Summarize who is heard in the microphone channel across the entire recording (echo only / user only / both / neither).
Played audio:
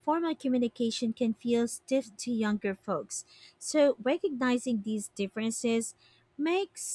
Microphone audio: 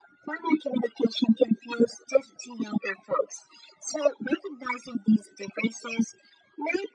echo only